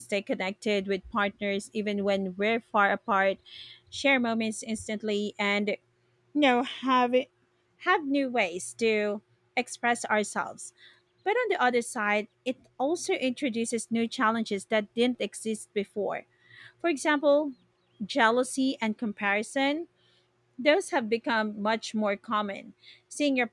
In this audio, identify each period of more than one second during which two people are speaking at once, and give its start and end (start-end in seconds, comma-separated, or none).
none